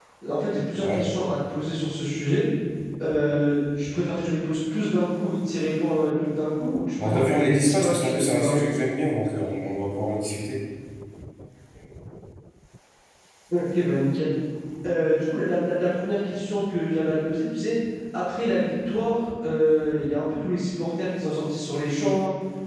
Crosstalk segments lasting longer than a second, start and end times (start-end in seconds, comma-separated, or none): 7.0-8.7